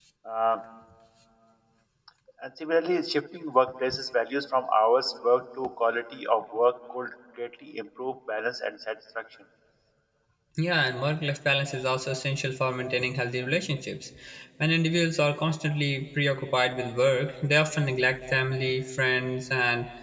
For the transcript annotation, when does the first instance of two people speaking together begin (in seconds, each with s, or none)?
none